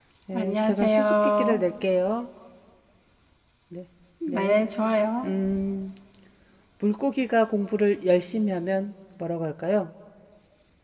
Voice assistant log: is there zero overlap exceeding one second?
No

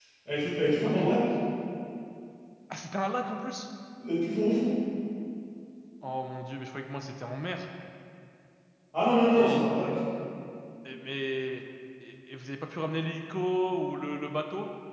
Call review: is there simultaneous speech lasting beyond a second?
No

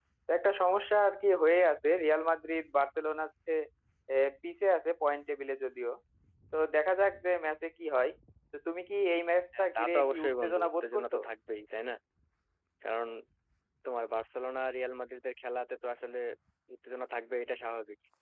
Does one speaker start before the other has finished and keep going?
Yes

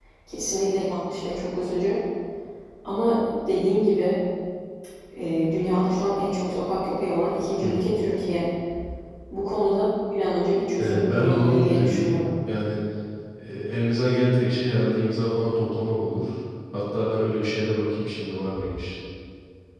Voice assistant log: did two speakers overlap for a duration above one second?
Yes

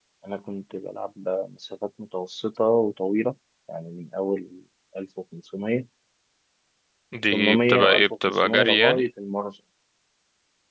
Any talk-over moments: Yes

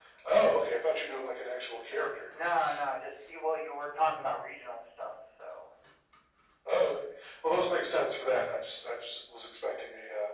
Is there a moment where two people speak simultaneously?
No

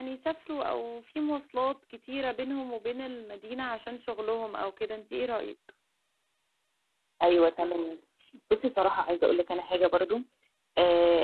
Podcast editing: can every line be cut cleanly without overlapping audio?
Yes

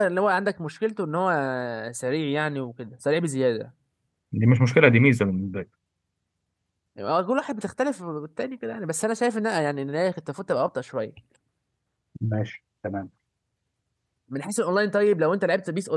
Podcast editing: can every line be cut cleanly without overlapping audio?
Yes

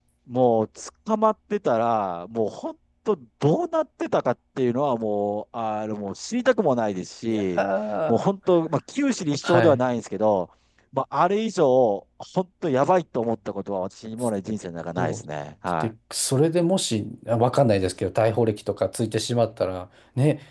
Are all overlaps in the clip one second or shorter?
Yes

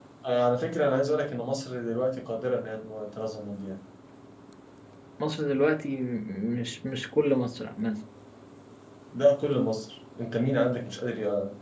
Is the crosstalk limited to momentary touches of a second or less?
Yes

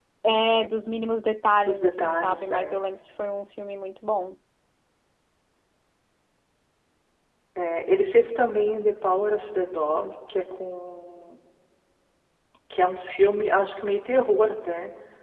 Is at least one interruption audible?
Yes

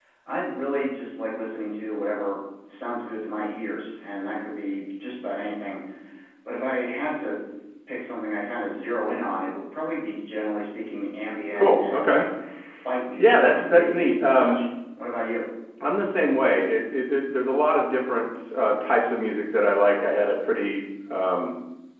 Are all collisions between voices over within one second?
No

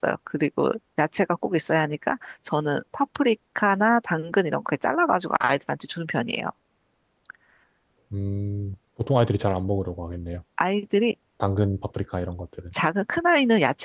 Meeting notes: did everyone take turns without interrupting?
Yes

